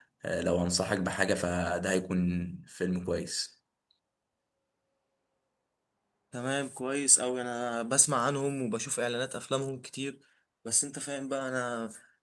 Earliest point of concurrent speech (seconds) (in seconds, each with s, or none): none